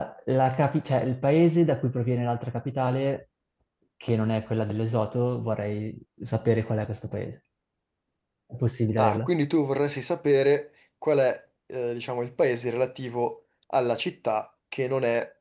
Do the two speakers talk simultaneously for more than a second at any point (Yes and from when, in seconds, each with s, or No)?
No